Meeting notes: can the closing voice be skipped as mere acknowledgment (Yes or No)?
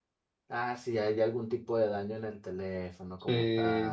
No